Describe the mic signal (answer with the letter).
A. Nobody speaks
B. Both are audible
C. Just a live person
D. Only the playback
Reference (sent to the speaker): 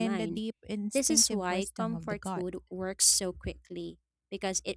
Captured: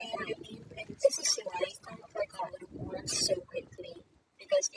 D